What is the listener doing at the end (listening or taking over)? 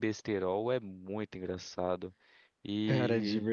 taking over